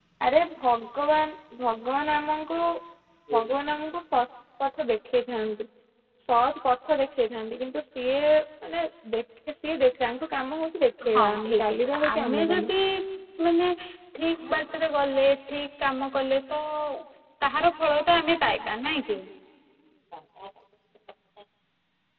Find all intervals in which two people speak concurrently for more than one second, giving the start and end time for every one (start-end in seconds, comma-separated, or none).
11.2-12.7